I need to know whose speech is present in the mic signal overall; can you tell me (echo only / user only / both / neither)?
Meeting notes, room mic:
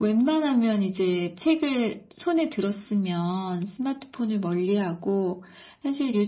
echo only